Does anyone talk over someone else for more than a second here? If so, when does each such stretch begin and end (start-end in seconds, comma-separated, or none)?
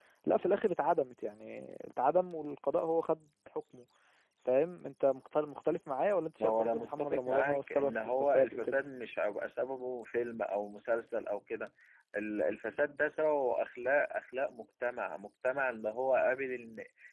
6.4-8.8